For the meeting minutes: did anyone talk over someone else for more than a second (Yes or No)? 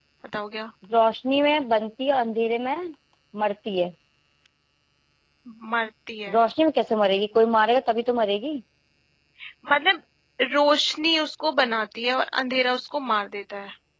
No